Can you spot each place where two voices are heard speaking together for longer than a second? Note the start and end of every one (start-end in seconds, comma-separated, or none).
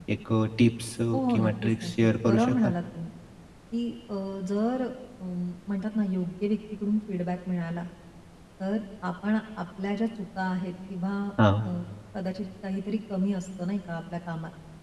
1.1-2.7